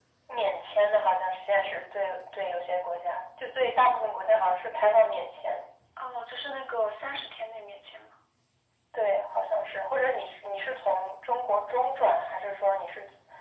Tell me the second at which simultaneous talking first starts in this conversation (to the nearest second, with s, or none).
none